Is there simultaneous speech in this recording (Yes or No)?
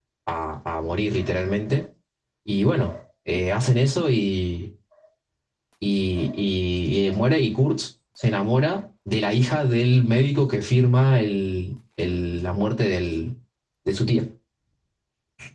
No